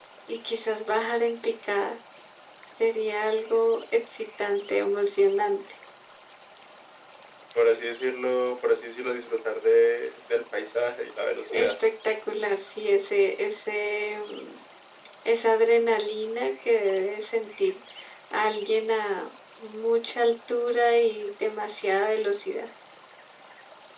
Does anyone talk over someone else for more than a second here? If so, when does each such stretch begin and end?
none

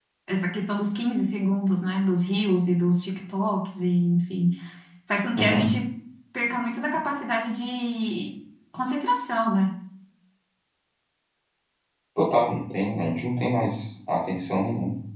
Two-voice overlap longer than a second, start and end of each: none

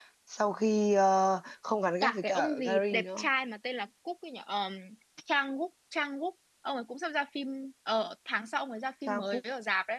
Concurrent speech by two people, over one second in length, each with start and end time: 2.0-3.3

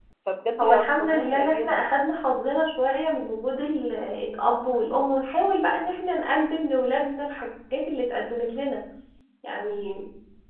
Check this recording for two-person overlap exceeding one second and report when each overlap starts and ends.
0.6-1.9

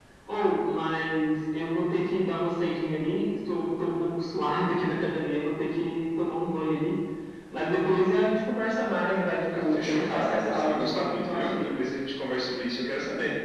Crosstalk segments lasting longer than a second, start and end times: 9.5-11.7

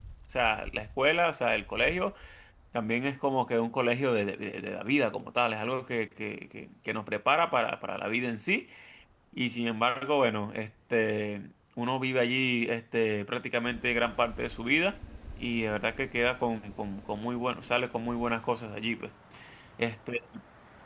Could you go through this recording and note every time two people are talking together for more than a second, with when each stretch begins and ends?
none

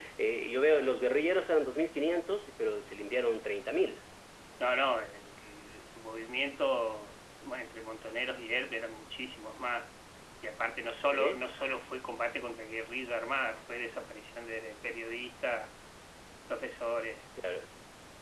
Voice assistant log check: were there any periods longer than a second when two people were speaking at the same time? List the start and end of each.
none

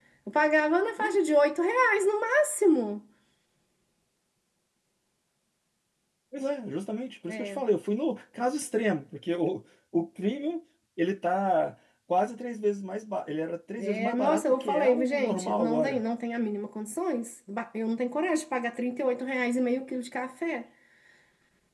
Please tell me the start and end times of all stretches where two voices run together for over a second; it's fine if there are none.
13.8-16.0

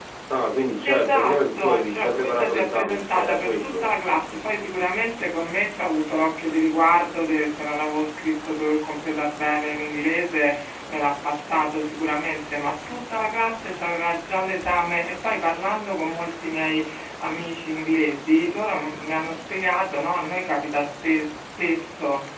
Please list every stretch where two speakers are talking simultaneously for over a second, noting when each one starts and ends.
0.8-3.9

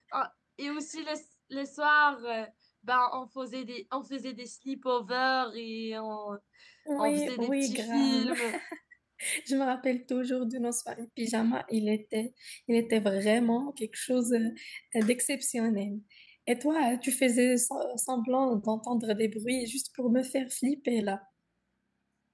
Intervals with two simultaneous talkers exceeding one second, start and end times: 7.0-8.3

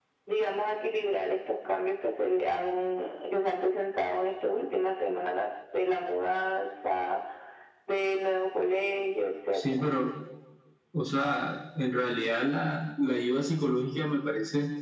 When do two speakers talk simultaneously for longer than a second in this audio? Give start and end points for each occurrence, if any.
none

